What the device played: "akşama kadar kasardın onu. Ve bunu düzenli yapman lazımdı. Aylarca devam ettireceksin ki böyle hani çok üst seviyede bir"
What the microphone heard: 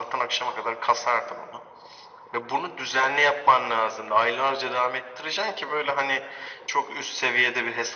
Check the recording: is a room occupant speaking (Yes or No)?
No